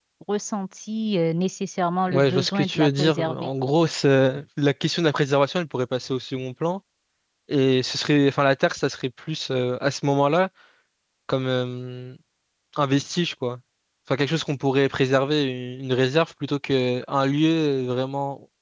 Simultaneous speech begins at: 2.1 s

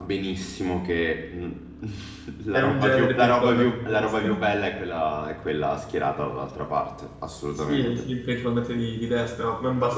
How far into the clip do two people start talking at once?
2.5 s

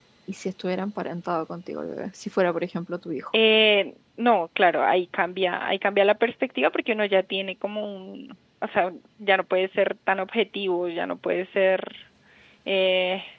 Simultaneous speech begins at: none

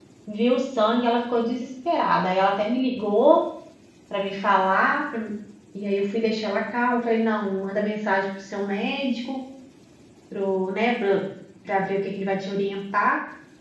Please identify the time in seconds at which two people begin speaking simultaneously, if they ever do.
none

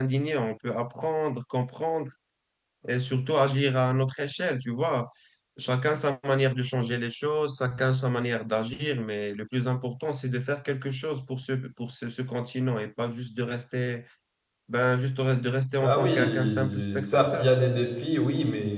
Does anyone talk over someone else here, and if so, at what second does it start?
15.8 s

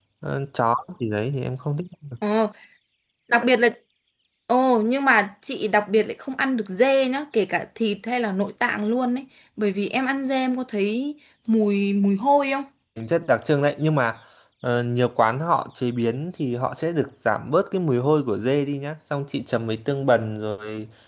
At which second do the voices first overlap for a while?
none

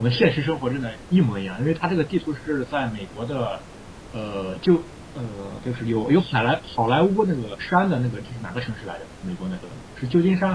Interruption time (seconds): none

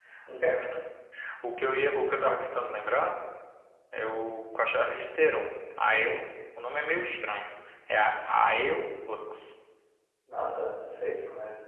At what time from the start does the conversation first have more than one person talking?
none

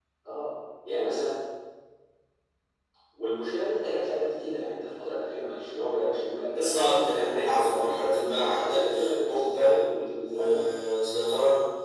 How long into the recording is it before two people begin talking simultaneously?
6.5 s

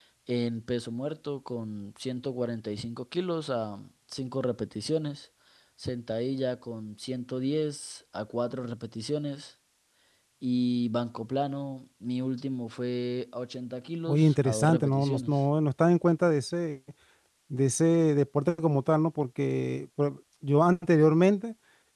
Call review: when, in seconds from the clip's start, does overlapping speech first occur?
14.1 s

